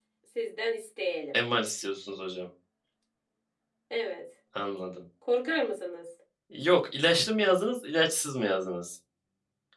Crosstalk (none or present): none